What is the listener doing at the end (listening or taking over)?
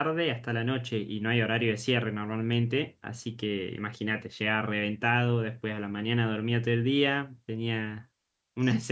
listening